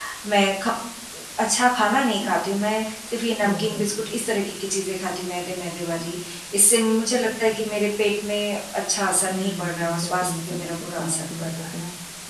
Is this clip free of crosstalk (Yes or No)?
No